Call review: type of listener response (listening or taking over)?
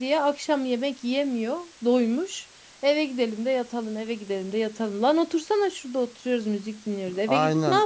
taking over